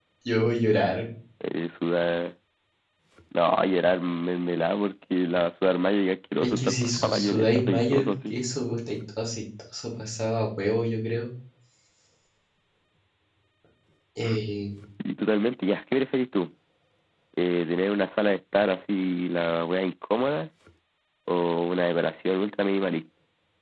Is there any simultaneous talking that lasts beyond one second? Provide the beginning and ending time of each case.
6.4-8.3

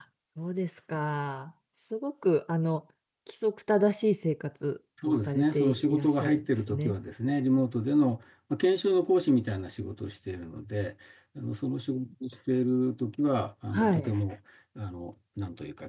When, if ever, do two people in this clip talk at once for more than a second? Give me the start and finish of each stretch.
5.0-7.0

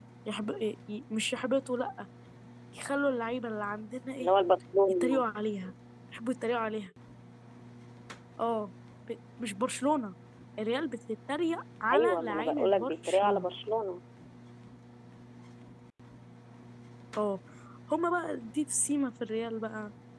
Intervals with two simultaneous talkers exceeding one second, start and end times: 11.9-13.5

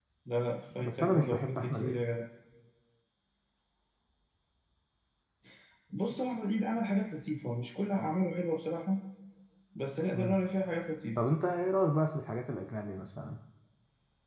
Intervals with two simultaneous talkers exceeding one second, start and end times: 0.8-2.0

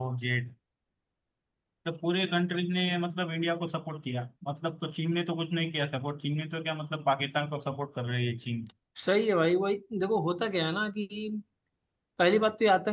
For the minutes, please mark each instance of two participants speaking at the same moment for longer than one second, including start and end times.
none

